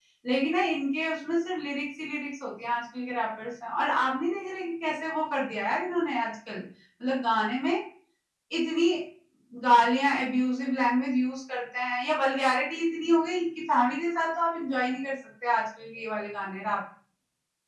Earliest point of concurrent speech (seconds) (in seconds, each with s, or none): none